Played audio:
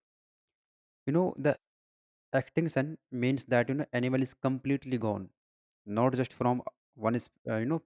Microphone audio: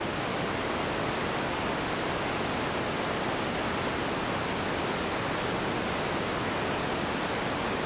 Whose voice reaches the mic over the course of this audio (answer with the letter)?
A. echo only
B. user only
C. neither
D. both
C